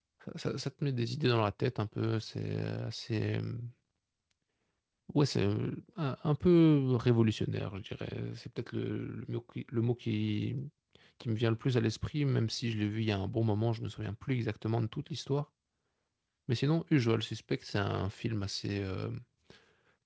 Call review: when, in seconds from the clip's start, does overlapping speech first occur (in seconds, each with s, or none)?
none